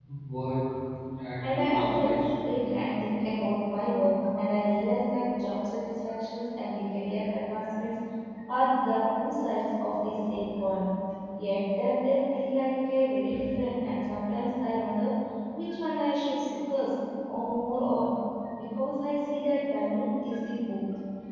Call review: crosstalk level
present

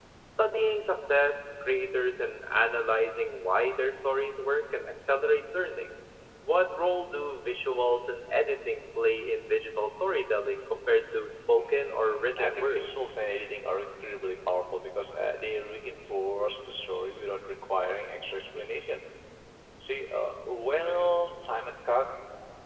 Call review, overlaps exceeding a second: present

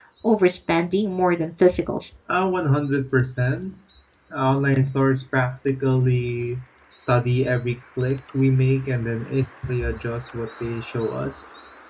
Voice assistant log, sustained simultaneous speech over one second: none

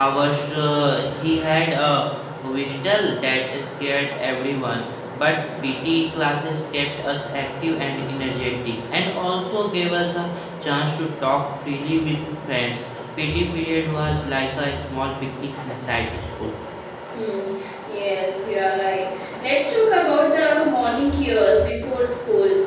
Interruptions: none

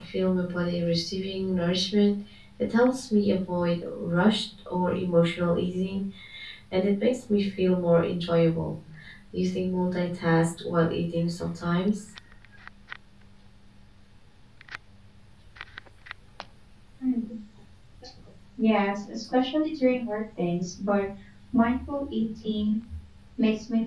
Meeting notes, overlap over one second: none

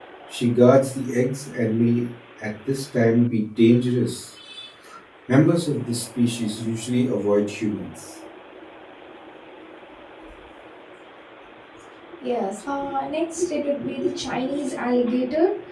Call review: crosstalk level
none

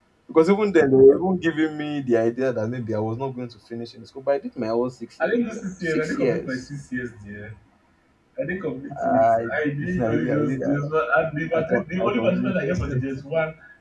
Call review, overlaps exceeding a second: present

